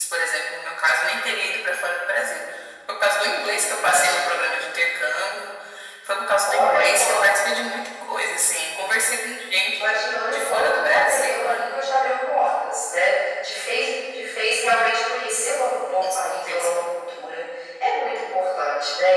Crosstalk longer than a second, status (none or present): present